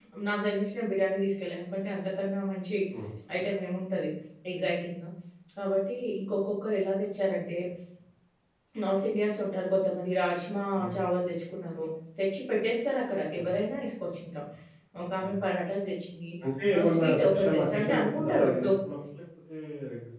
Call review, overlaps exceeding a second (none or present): present